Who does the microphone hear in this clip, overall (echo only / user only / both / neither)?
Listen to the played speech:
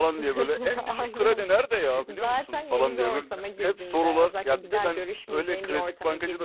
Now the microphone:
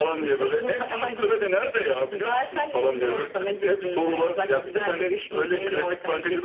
echo only